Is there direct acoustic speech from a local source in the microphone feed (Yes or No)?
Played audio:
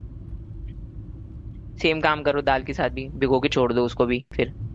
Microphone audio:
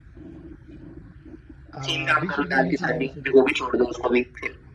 Yes